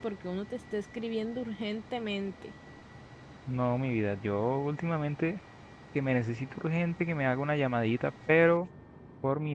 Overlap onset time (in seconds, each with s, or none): none